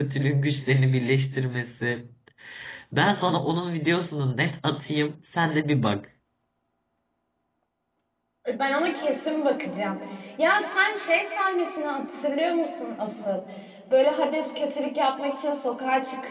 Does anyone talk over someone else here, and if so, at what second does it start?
none

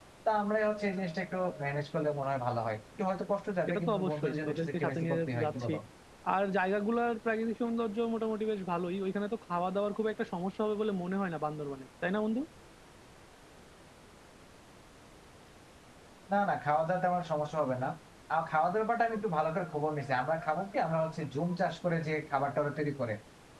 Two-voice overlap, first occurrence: 3.7 s

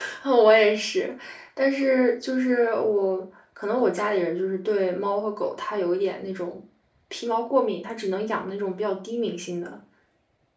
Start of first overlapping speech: none

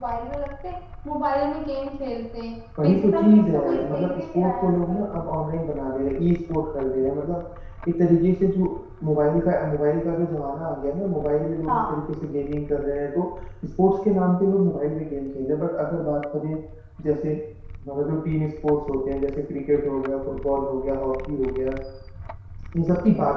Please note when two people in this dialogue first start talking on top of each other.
2.8 s

